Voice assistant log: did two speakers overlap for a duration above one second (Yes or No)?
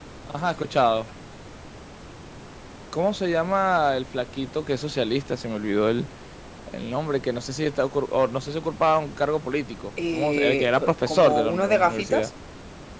Yes